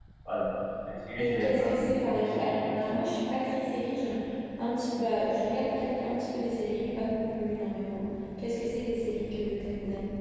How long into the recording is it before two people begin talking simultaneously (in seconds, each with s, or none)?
1.2 s